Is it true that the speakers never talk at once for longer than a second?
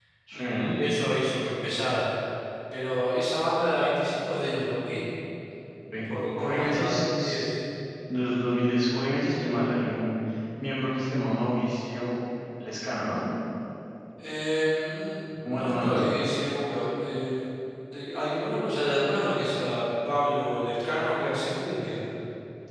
No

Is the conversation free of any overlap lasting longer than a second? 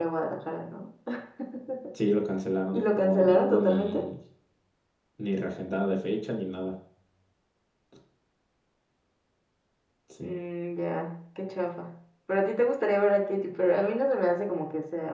No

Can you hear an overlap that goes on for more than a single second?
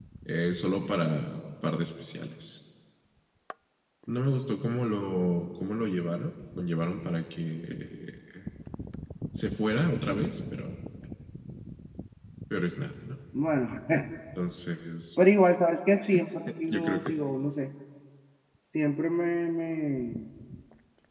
No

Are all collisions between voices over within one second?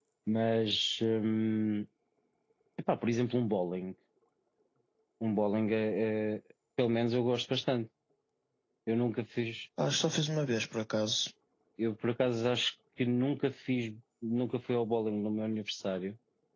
Yes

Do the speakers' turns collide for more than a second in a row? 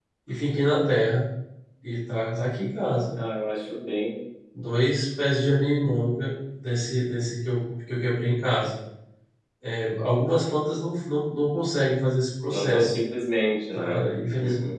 No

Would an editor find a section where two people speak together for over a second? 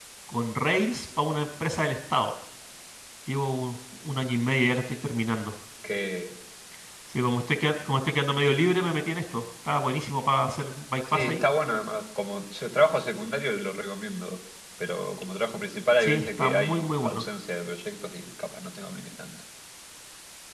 Yes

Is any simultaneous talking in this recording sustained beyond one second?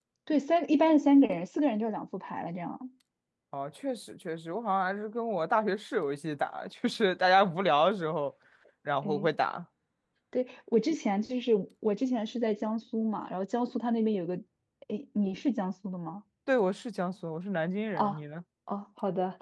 No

